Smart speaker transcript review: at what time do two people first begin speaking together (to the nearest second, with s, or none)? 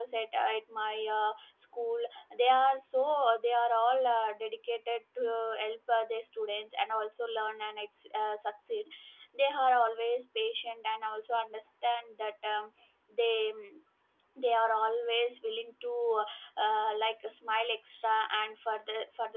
none